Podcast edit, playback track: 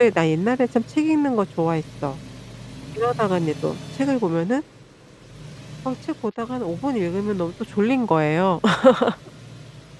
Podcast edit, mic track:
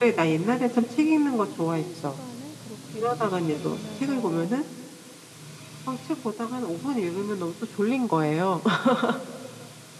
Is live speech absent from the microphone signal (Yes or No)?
No